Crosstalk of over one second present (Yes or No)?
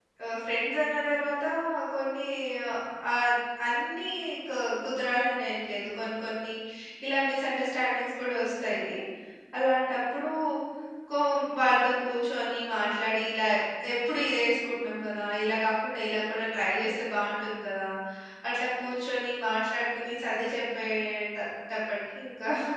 No